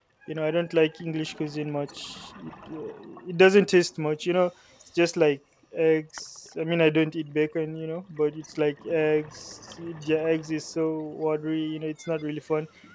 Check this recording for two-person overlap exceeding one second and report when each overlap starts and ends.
none

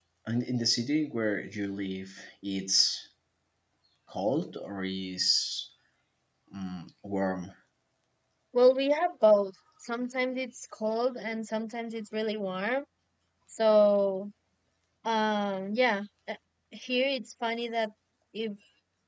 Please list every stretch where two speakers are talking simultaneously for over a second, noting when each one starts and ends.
none

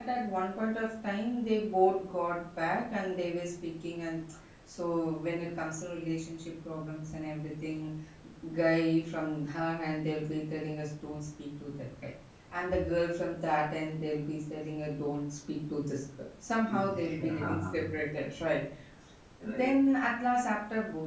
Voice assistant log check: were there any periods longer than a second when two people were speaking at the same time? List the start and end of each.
16.7-17.9

